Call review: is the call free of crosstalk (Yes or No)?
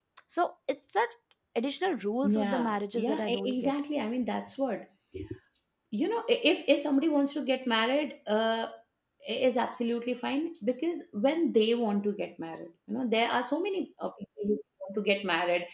No